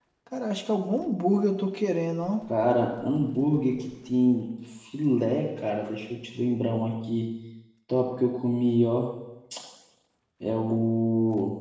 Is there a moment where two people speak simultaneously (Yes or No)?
No